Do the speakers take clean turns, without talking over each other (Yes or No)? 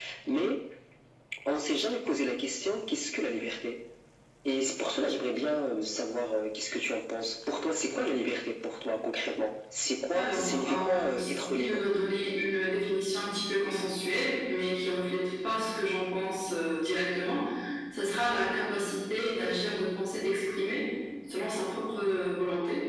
No